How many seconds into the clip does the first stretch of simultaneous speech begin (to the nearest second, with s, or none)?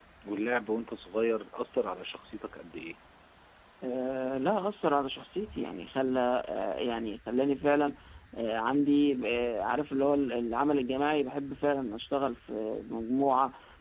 none